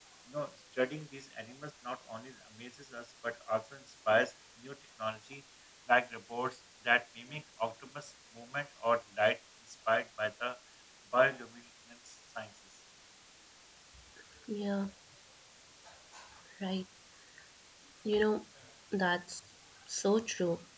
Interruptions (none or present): none